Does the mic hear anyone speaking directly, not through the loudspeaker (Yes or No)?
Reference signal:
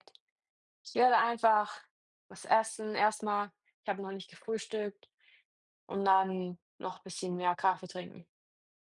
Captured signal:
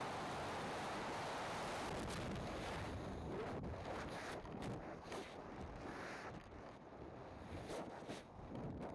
No